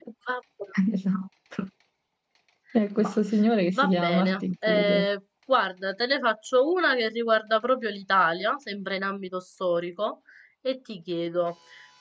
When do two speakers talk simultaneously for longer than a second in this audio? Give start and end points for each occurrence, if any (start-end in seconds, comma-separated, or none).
3.7-5.0